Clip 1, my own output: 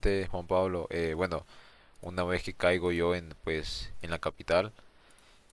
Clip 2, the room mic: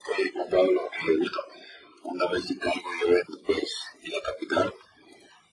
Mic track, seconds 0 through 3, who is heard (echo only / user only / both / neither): echo only